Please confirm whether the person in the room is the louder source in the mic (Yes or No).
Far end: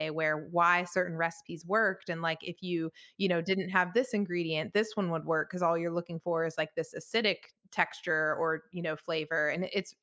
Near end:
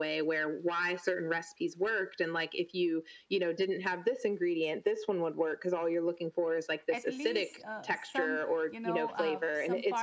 No